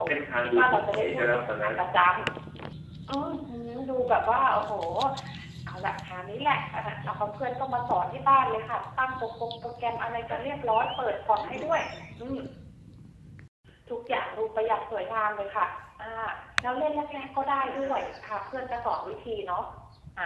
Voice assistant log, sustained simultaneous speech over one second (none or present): present